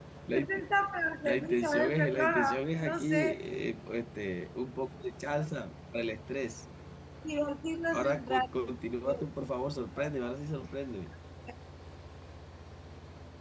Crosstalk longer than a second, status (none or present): present